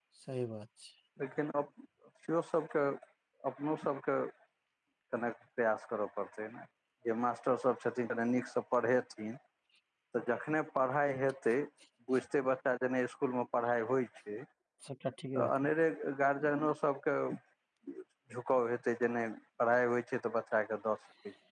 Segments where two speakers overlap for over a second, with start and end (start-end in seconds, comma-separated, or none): none